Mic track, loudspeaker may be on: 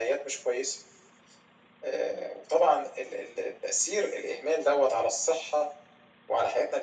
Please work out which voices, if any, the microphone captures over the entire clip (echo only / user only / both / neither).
echo only